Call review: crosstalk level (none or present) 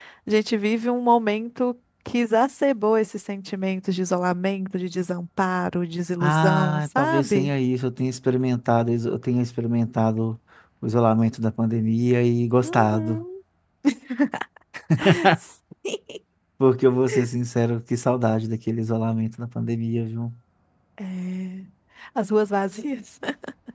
present